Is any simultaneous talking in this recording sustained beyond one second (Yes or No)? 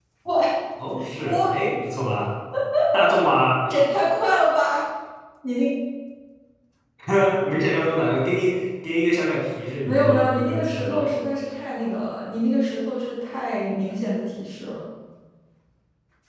Yes